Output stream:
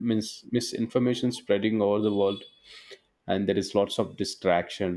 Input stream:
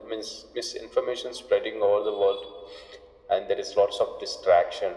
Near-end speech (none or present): none